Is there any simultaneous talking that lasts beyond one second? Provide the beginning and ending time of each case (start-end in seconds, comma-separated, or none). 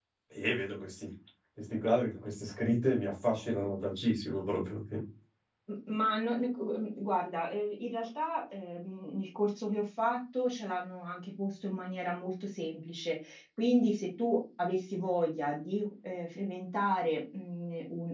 none